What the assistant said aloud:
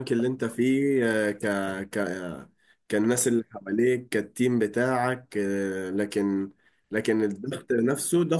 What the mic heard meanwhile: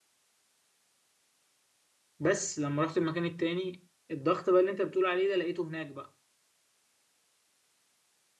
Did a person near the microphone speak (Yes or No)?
Yes